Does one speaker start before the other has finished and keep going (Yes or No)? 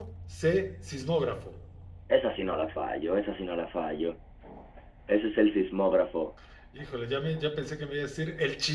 No